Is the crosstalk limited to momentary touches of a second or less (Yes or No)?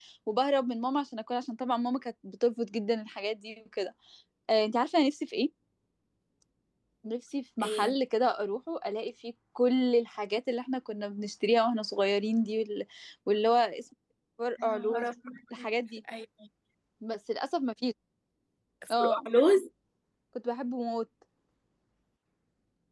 Yes